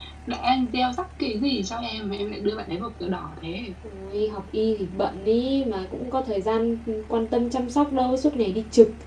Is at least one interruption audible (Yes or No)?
No